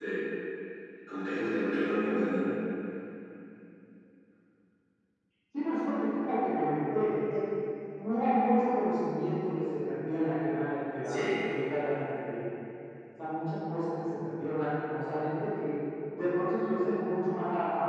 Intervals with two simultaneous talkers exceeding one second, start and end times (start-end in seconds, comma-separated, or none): none